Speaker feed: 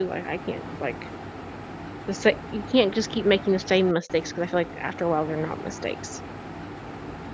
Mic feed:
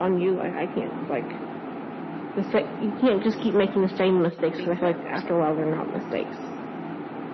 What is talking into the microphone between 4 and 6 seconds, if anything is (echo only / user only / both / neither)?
both